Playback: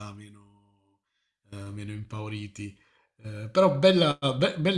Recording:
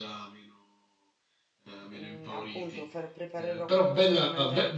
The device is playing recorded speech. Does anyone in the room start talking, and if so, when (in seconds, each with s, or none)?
1.9 s